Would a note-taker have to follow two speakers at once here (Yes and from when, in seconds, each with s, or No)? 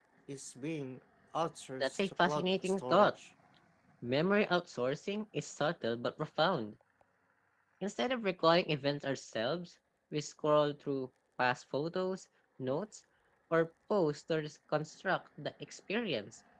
Yes, from 1.8 s